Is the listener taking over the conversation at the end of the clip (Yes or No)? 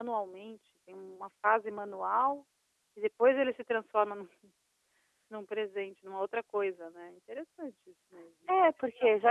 Yes